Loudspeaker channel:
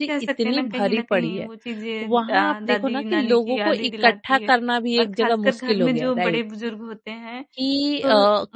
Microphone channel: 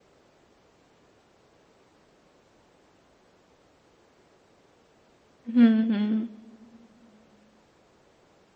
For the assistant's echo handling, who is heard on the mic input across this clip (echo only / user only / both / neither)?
user only